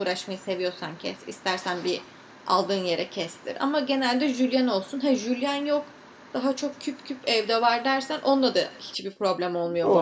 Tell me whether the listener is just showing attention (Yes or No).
No